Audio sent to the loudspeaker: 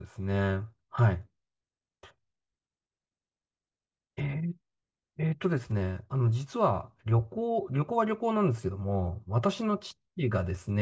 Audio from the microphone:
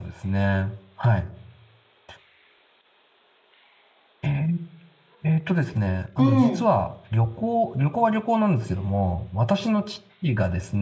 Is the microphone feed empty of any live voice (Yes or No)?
No